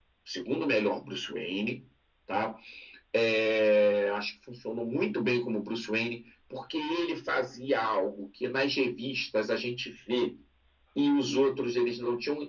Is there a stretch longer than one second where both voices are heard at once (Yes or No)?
No